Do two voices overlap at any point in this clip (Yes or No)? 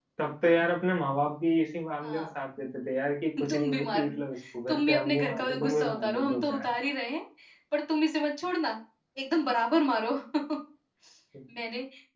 Yes